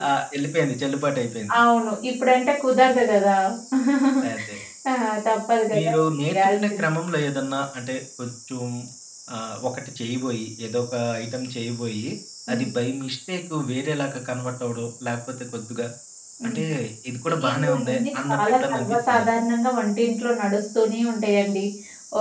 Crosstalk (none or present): present